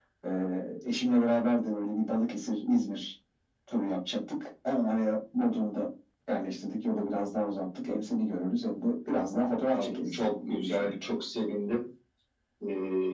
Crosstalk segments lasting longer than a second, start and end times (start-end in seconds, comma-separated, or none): 9.7-10.9